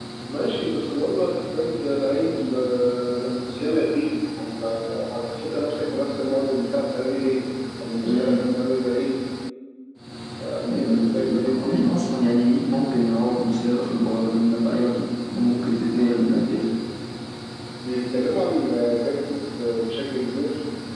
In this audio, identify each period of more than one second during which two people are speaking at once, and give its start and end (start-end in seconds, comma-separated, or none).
10.6-11.8